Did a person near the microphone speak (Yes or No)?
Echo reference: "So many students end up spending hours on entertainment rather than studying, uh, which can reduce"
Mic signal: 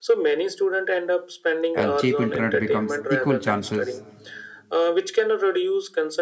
Yes